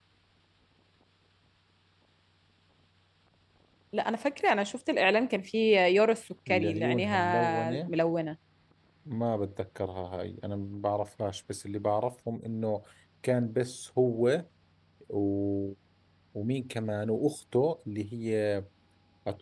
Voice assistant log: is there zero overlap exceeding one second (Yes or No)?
No